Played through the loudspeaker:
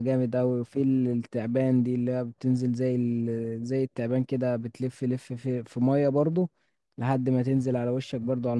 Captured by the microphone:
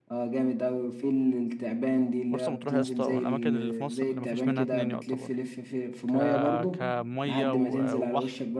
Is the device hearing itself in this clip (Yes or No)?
Yes